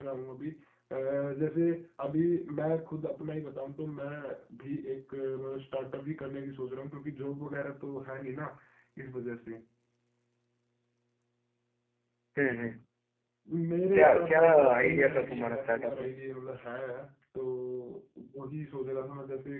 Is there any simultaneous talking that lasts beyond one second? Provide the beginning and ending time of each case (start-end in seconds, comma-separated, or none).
13.9-16.1